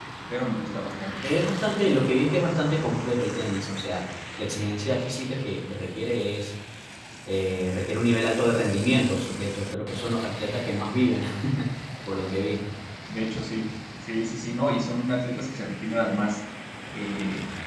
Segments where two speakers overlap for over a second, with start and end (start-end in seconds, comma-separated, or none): none